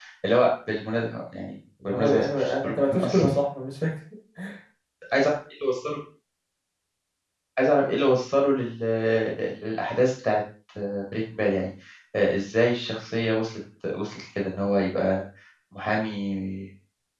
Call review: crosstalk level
present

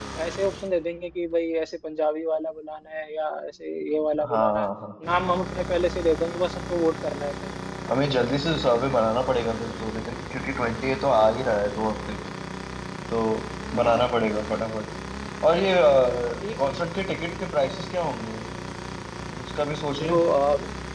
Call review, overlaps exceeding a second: none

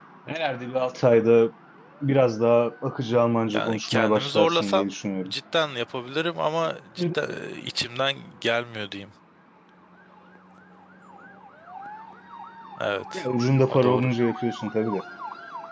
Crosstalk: present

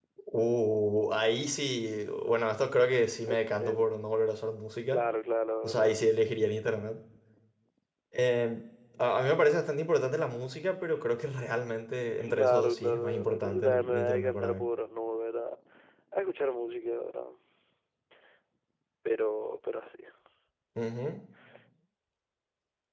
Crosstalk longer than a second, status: present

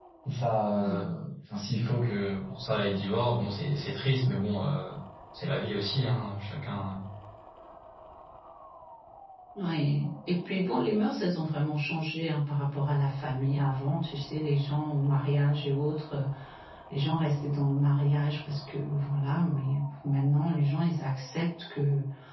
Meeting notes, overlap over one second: none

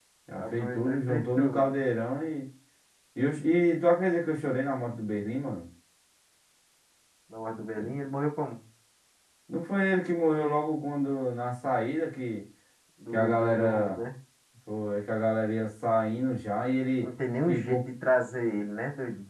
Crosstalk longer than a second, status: present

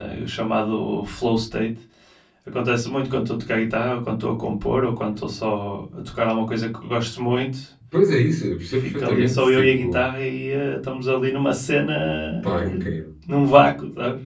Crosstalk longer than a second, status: present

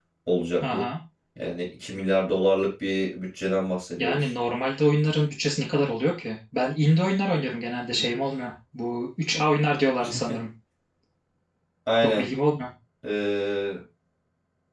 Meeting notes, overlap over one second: none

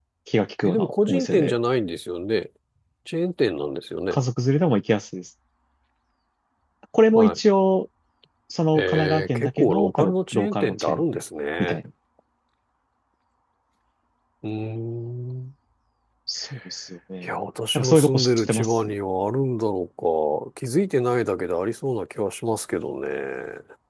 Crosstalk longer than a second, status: present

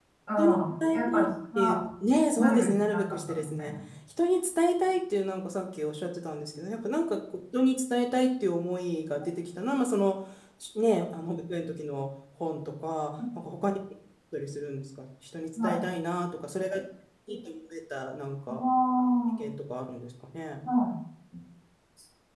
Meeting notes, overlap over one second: present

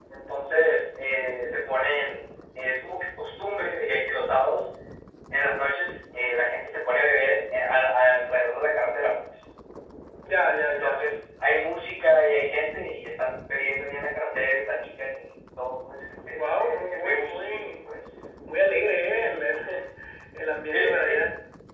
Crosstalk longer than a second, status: present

